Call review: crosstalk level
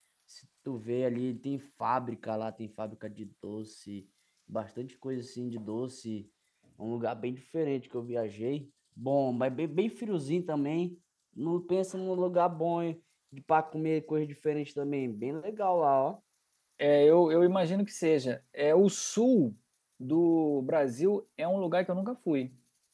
none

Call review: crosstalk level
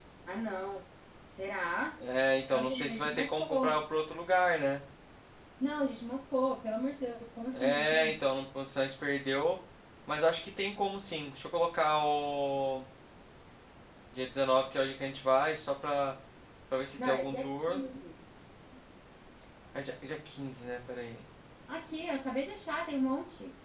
present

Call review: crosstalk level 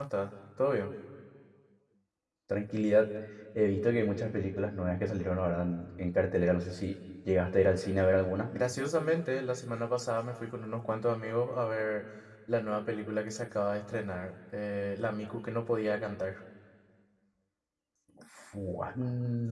none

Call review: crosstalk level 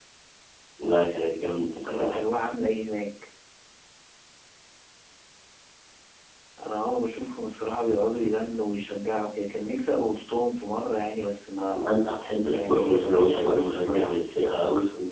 present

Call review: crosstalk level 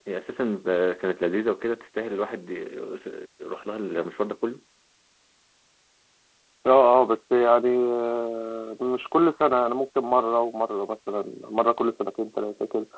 none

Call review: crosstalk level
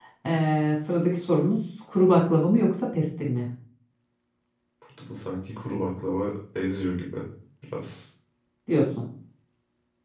none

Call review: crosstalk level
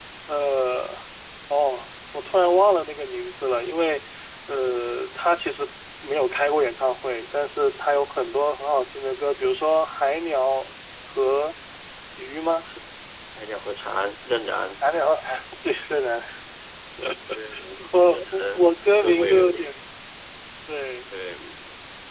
present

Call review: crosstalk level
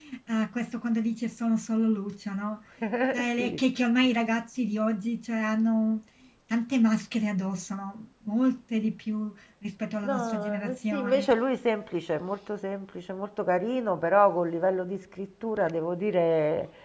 present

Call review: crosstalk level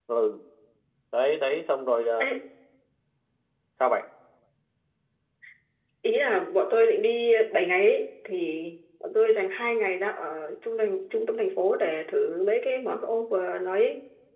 none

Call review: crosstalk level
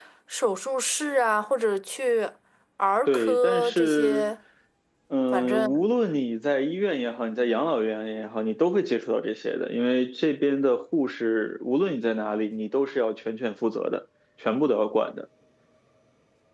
present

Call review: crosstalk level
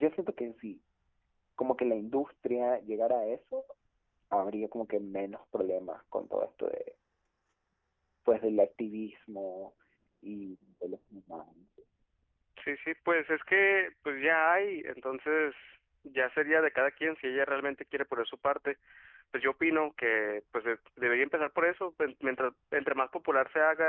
none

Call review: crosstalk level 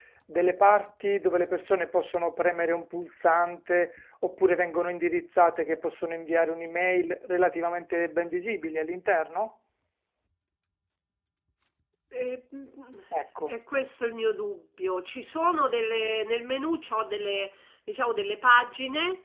none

